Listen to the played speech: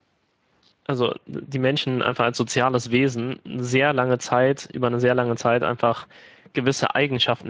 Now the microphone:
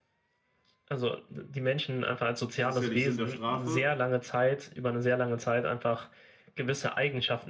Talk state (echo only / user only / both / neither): both